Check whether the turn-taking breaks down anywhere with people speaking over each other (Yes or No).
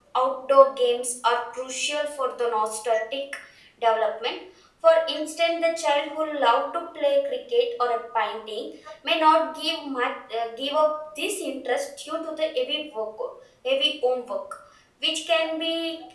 No